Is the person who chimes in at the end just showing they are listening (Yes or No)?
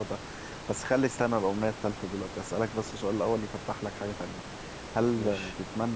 Yes